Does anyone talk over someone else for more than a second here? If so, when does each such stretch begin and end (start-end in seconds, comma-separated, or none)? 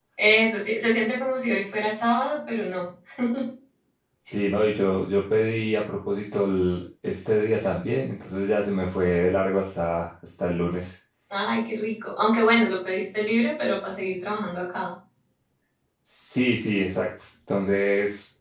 none